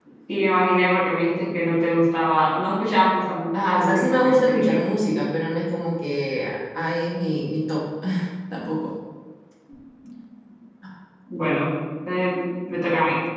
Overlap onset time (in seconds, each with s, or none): 3.5 s